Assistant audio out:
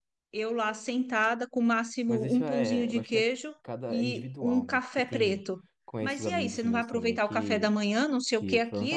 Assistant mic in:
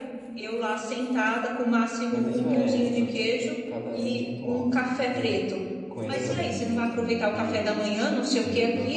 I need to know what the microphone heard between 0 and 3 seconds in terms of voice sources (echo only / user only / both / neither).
echo only